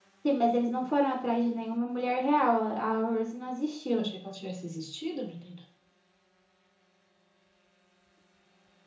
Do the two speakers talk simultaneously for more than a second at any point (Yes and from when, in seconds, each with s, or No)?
No